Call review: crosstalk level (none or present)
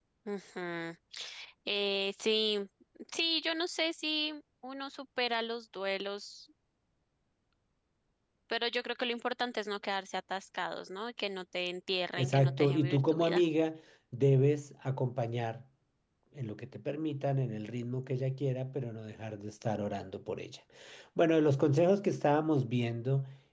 present